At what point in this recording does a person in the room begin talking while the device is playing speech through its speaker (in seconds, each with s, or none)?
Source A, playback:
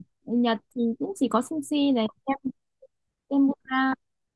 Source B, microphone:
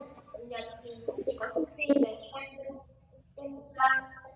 none